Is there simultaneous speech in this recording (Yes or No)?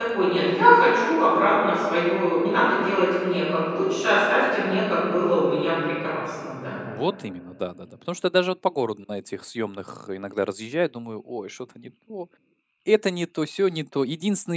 No